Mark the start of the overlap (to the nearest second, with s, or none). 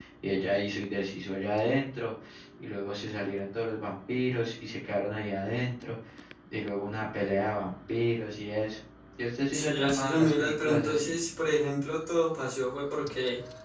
10 s